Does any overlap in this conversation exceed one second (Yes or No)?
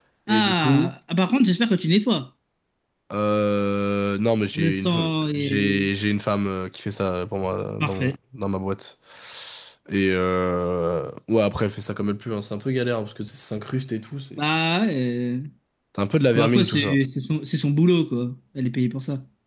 Yes